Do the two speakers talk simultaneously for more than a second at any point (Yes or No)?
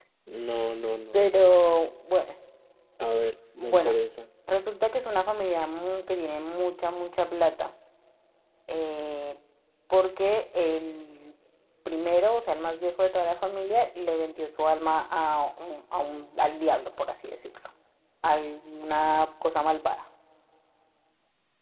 No